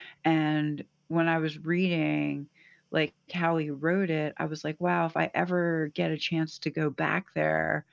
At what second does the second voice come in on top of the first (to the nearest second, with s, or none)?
none